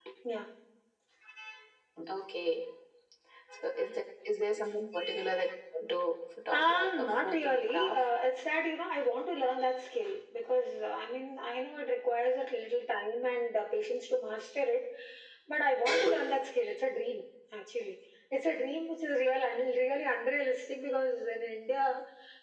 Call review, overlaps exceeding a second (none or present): present